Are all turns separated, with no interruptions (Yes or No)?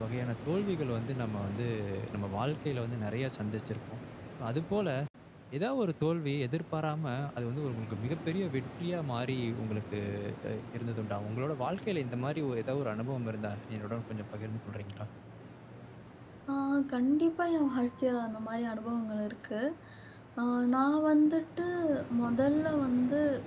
Yes